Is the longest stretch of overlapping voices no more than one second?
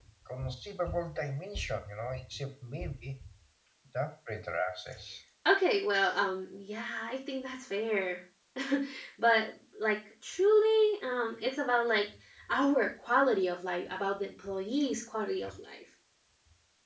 Yes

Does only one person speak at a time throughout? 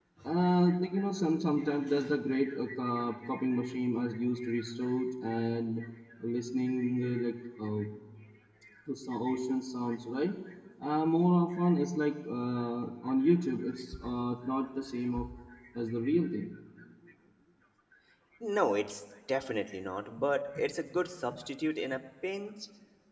Yes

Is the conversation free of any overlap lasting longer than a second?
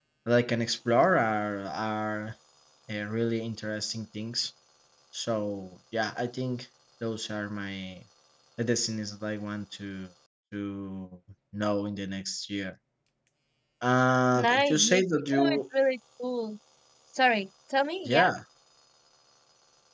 No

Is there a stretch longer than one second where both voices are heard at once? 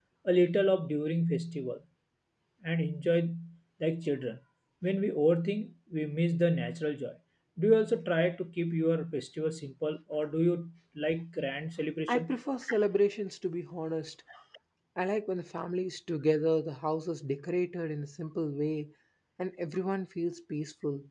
No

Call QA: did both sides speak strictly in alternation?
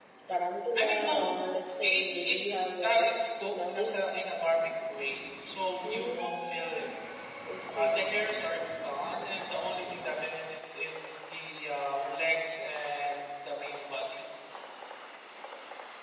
No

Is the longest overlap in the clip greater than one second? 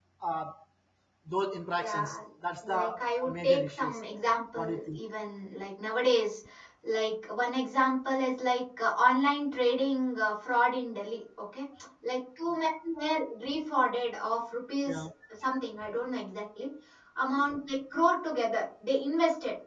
Yes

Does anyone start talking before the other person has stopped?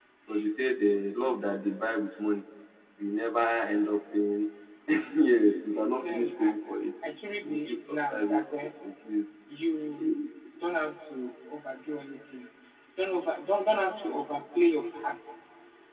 Yes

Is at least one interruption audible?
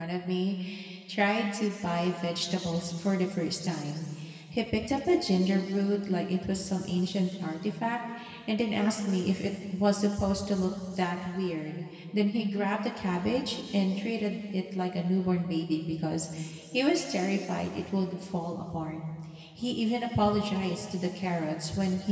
No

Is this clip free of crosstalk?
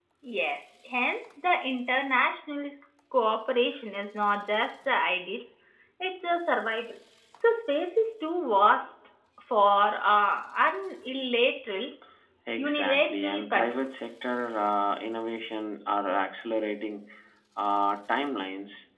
No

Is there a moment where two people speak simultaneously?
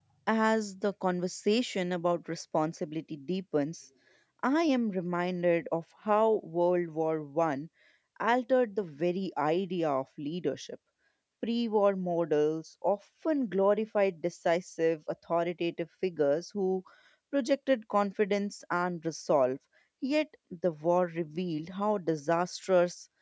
No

